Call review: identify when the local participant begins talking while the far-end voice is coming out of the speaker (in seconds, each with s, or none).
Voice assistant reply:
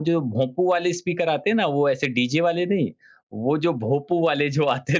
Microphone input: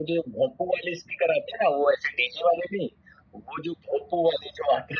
none